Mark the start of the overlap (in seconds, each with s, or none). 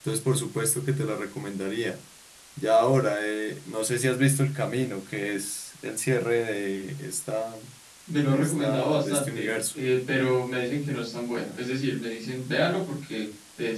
8.3 s